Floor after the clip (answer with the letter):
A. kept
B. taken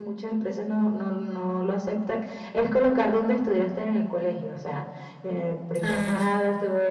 A